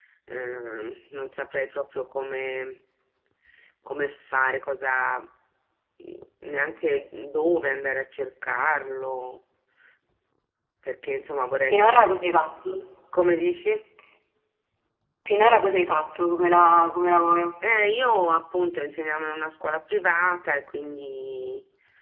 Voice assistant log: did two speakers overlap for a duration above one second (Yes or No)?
No